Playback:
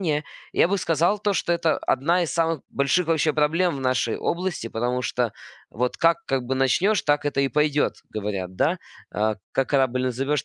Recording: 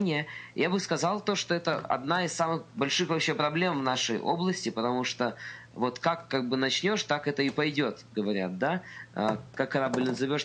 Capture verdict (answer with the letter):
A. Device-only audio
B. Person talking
A